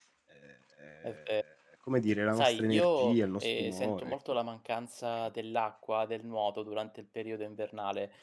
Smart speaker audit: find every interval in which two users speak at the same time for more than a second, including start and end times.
2.3-4.2

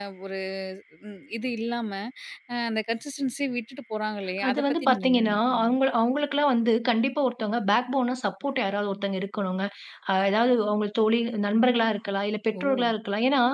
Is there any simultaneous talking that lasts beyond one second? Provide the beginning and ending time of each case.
4.5-5.7

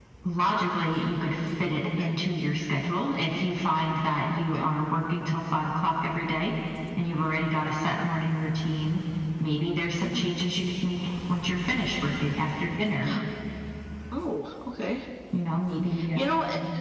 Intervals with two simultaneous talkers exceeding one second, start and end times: none

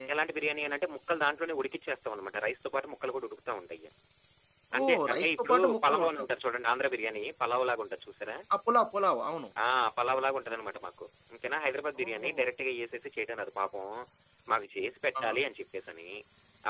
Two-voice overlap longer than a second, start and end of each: 4.8-6.3

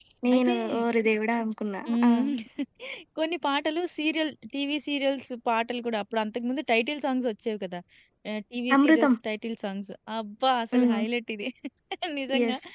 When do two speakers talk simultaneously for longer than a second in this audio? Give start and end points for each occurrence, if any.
none

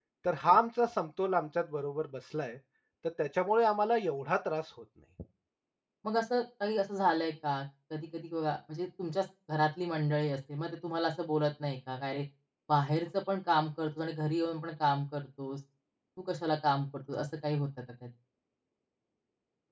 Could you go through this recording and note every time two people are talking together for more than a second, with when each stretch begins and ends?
none

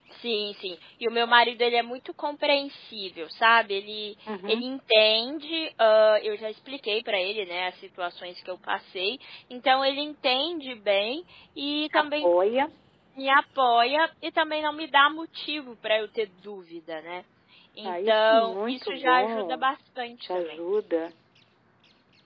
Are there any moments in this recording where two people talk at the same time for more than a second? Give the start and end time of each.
17.8-19.7

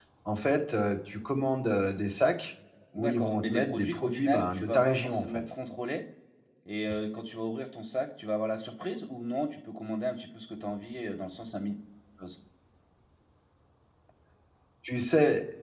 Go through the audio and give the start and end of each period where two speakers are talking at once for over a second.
3.0-5.4

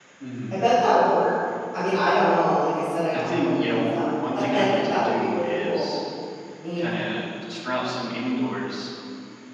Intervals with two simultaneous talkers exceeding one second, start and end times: 3.1-5.9

